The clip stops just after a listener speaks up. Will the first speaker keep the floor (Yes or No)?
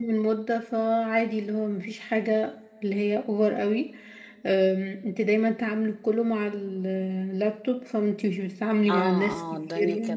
No